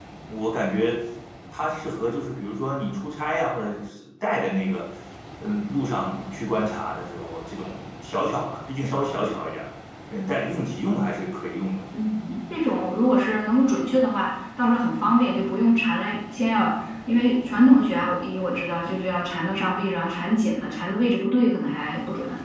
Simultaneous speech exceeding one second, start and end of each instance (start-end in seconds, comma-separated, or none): none